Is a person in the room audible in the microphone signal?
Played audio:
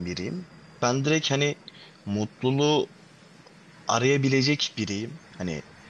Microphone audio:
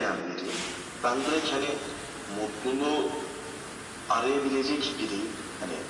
No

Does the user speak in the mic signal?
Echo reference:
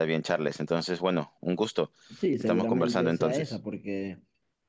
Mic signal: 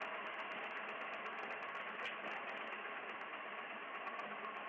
No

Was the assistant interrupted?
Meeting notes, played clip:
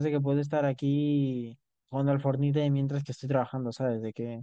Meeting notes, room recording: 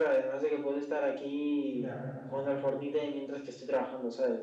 Yes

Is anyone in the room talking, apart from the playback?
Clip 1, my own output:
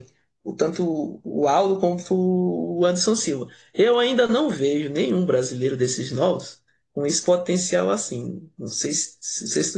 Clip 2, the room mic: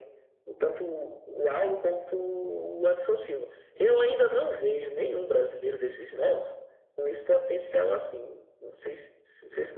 No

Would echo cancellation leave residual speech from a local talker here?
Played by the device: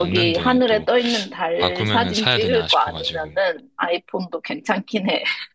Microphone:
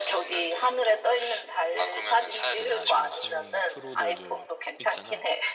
Yes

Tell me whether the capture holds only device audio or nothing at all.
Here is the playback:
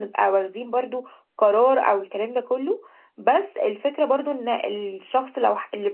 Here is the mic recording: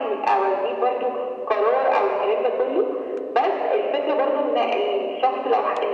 Yes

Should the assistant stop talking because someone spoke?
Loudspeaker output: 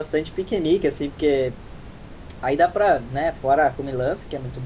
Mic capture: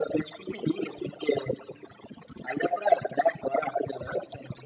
No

